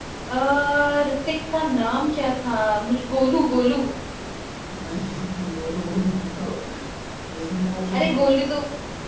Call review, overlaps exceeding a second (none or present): none